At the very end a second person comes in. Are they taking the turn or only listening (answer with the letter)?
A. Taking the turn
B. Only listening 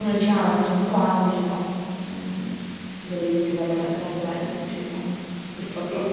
A